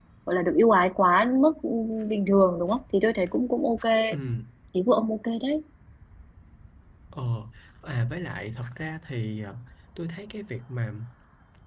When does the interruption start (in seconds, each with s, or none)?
none